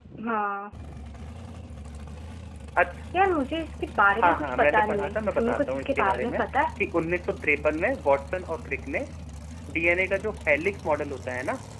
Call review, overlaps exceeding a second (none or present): present